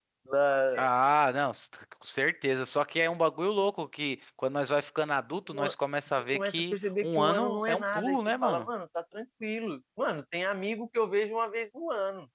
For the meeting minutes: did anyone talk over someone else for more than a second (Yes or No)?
Yes